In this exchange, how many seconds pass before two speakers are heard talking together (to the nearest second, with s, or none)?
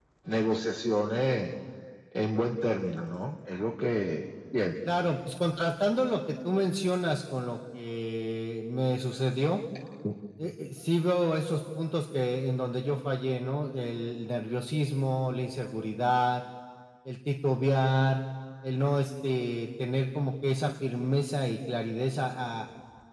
none